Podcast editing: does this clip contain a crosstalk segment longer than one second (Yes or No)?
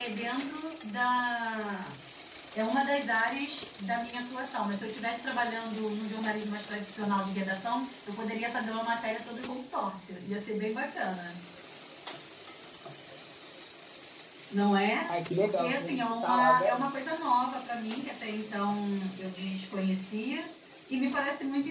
Yes